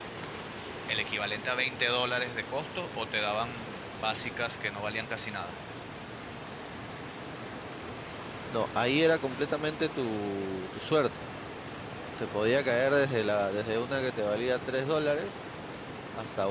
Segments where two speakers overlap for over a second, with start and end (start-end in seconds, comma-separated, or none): none